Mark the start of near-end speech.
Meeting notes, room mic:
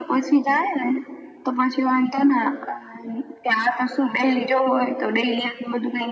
none

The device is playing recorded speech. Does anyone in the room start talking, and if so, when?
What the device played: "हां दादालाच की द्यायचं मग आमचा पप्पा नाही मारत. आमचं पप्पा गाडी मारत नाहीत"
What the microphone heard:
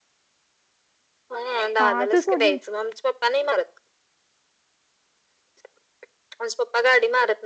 1.8 s

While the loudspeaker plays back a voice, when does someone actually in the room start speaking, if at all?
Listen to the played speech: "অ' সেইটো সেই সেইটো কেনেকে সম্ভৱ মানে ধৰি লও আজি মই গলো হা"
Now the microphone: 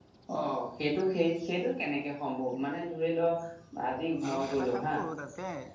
4.3 s

